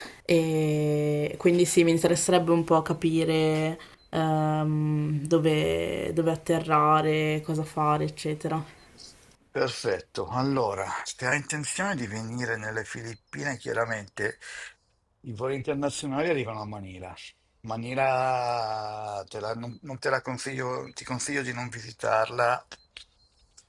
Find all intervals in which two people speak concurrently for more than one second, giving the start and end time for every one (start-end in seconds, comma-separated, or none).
none